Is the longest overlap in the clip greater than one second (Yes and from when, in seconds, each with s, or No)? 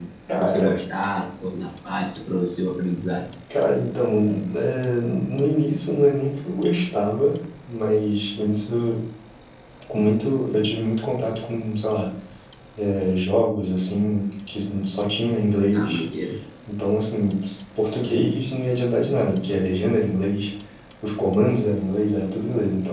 No